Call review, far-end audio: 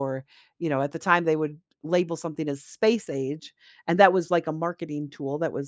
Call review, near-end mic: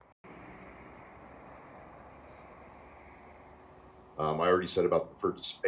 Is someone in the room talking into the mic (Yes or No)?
Yes